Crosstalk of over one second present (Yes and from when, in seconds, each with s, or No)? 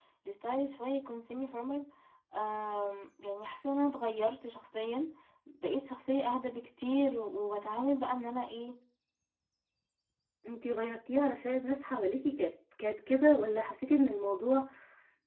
No